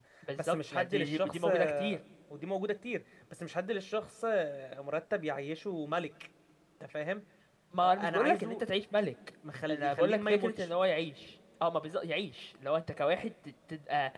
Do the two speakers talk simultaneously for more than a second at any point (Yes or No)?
Yes